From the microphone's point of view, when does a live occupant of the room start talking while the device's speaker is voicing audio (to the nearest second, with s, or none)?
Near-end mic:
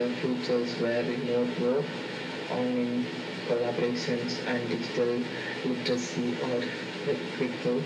none